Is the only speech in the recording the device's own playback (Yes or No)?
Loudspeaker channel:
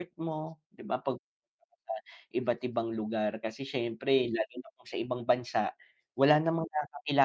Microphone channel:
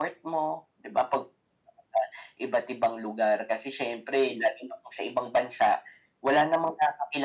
Yes